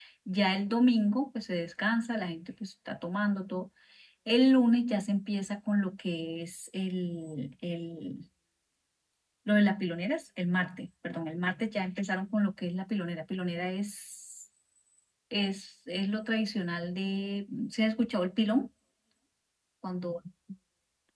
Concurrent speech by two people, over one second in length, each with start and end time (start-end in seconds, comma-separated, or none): none